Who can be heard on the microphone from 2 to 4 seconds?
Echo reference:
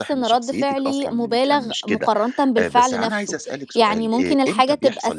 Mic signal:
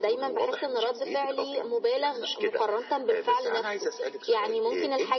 echo only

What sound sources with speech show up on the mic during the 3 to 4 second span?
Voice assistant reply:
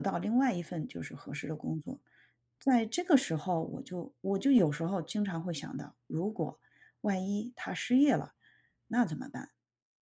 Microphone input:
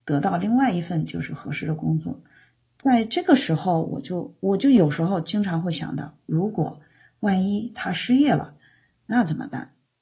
echo only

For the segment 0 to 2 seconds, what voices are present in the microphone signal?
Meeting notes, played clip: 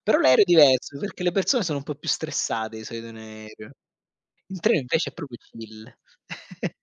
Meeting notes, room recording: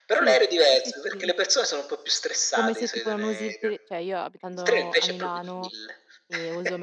both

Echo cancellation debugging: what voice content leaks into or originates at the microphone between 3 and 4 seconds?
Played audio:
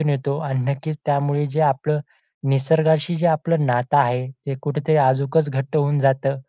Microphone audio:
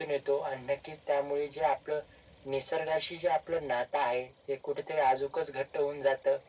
echo only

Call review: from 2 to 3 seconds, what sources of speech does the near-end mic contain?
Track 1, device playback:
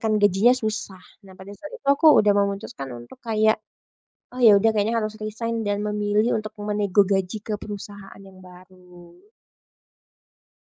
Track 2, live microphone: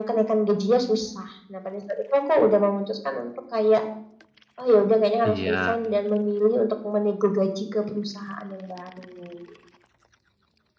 echo only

